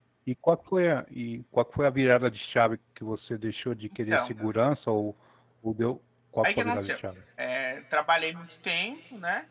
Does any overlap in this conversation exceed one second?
No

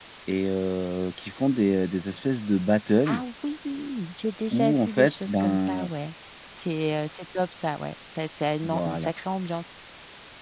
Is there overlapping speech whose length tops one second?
Yes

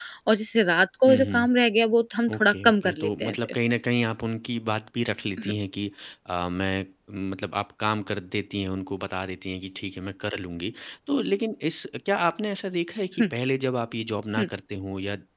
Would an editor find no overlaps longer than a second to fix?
No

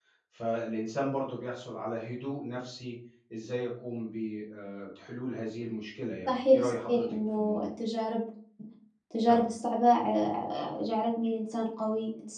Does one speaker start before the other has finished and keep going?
Yes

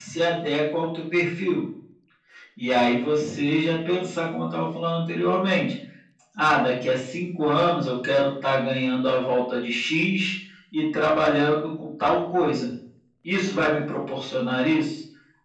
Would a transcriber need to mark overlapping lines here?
No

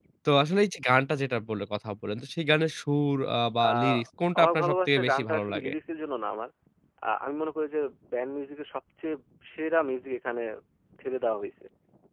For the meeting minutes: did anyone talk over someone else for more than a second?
Yes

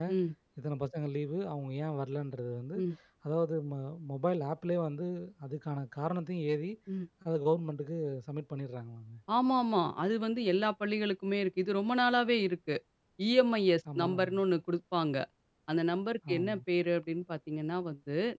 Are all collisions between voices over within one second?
Yes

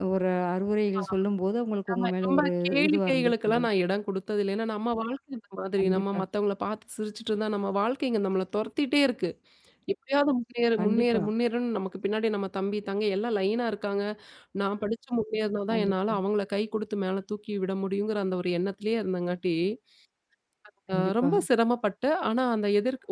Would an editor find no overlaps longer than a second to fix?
No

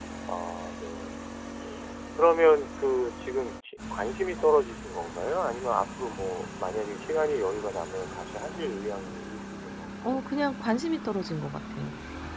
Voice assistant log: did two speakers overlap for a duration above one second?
No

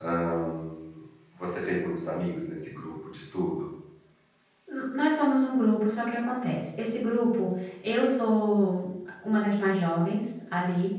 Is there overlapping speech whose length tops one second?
No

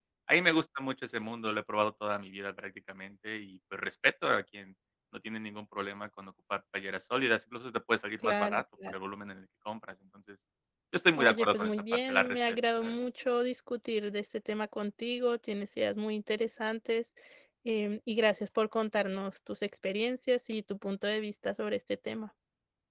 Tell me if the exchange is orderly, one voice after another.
No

